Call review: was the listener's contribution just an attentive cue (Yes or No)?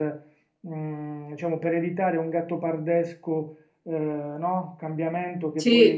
Yes